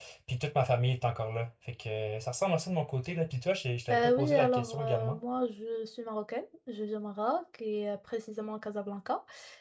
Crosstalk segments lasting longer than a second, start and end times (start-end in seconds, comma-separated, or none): 3.9-5.2